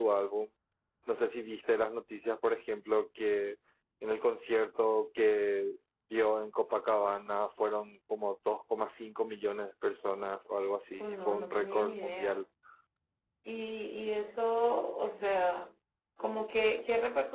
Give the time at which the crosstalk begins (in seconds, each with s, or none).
11.0 s